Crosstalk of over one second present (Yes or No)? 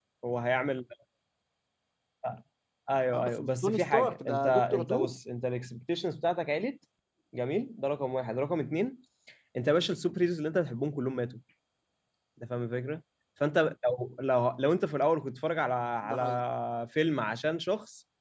Yes